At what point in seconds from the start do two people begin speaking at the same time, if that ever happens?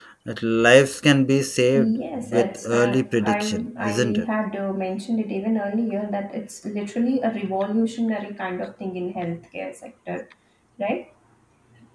1.7 s

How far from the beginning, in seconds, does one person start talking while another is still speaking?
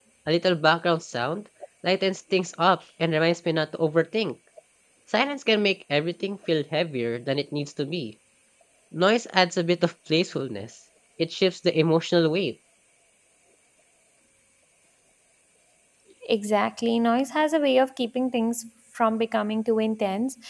none

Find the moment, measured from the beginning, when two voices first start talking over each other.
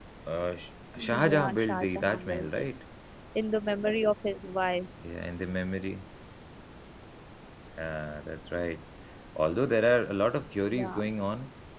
1.3 s

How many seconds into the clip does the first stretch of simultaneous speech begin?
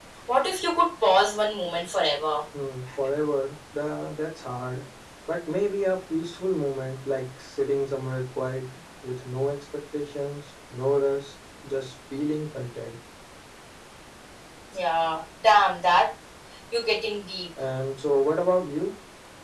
none

